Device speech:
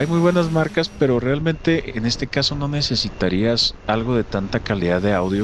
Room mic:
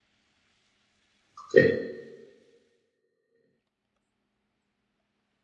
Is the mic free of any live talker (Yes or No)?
No